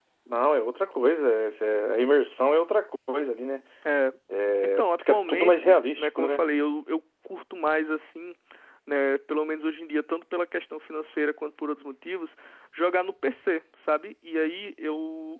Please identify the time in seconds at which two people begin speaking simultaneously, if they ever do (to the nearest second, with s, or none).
5 s